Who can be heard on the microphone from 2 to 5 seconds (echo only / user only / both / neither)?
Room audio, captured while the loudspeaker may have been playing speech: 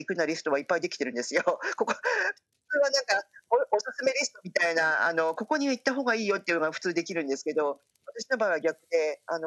echo only